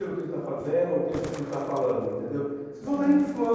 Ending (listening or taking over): listening